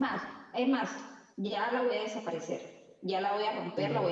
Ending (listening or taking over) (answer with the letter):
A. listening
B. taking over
A